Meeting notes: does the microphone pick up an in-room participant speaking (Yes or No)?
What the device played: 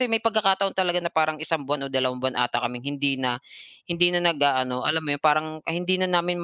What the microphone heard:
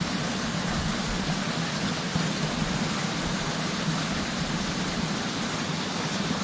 No